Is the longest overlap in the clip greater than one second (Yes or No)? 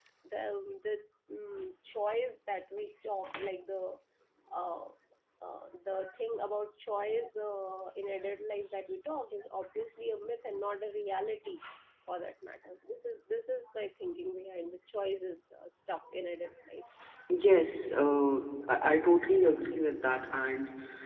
No